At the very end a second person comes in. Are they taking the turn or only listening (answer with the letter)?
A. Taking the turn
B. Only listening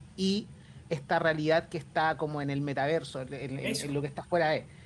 B